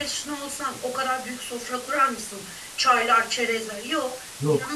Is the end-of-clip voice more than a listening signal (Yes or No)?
No